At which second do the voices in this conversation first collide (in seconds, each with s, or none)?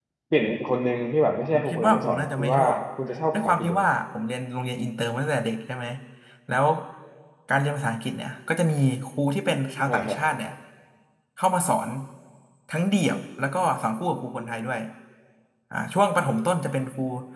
1.5 s